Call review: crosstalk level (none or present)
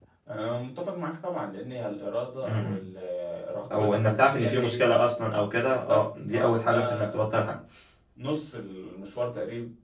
present